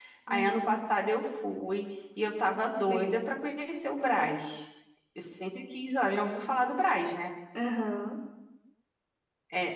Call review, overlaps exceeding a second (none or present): none